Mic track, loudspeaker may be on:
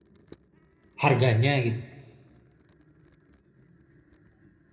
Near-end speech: present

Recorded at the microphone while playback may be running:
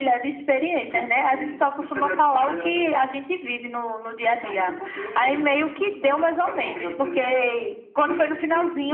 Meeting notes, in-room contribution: none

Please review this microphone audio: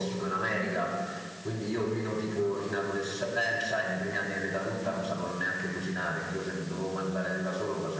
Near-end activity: none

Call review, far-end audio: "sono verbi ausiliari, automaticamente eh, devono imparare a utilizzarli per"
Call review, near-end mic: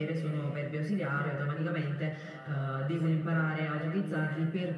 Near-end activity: present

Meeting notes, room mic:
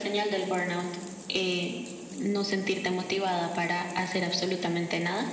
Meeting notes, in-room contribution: none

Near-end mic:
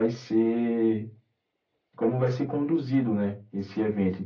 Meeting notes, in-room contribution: none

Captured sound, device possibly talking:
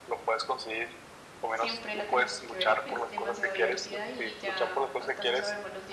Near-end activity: present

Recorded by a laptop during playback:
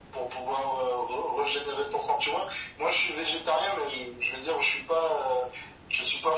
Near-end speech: none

